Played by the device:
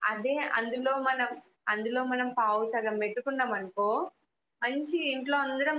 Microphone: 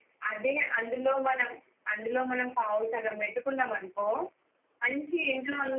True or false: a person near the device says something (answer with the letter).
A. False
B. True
A